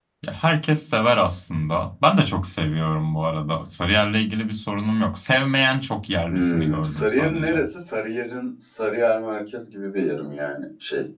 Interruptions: present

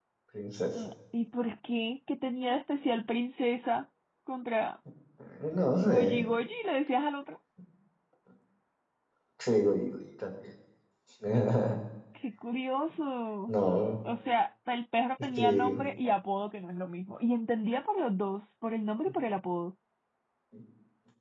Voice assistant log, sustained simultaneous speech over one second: none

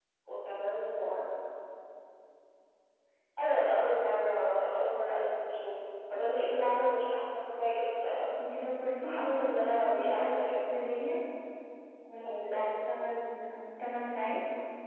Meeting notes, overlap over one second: present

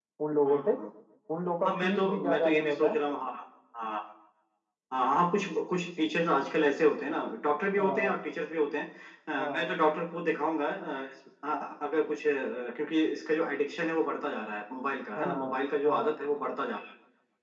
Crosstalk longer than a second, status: present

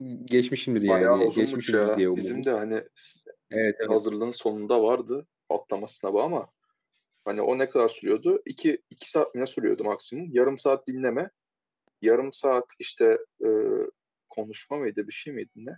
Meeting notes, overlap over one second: present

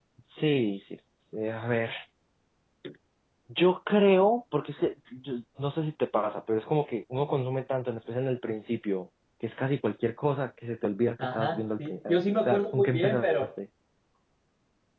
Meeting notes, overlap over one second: present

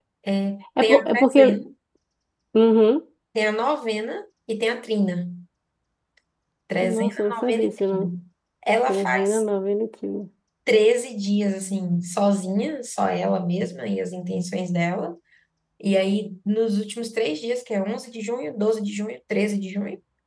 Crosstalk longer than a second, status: present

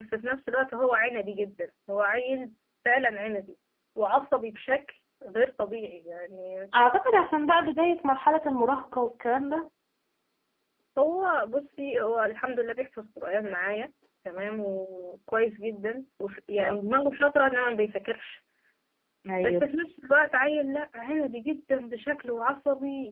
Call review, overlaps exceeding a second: none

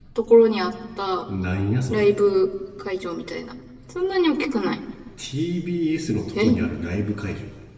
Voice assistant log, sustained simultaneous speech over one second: none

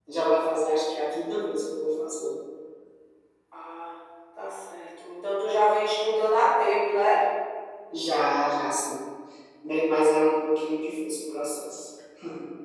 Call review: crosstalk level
none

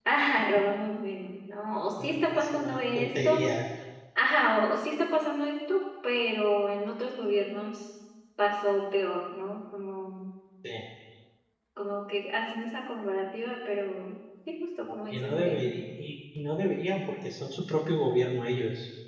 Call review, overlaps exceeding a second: present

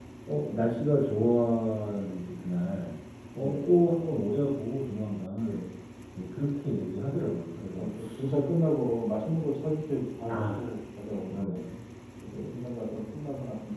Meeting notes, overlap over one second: none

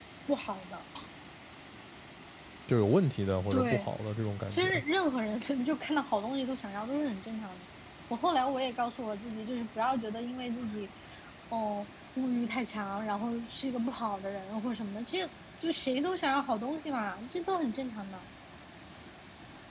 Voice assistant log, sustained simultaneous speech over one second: none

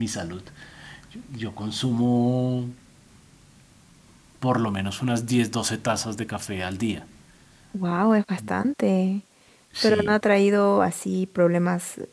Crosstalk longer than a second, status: none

